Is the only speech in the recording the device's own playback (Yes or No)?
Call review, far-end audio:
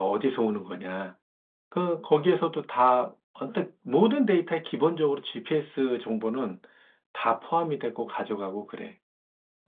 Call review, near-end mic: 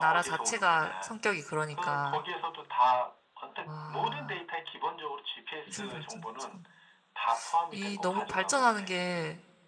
No